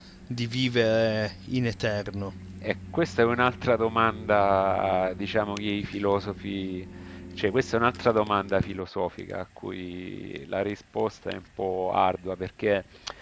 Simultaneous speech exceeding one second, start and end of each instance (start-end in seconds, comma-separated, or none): none